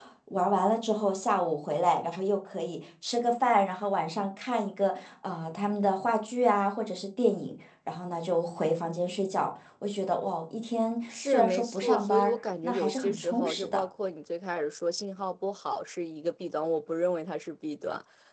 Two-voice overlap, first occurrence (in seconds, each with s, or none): 11.1 s